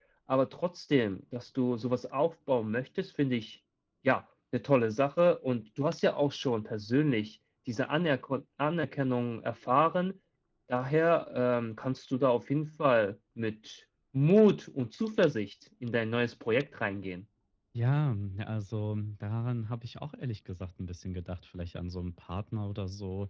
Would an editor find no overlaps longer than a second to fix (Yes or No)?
Yes